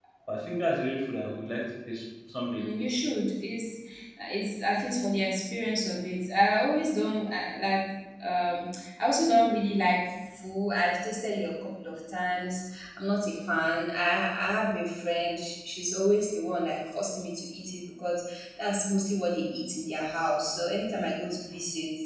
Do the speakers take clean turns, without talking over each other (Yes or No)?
Yes